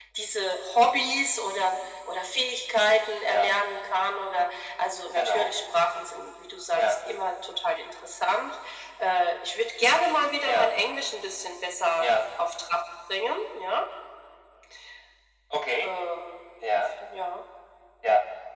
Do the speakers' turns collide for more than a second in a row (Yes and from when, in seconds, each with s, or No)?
No